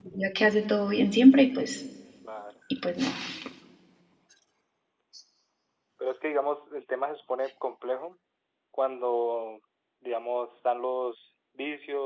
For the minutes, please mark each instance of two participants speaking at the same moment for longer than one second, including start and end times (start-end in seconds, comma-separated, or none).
none